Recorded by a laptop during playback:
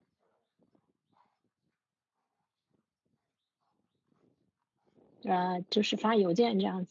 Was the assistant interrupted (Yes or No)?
Yes